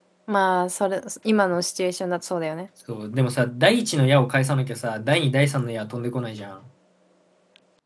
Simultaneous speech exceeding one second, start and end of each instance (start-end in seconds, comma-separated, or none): none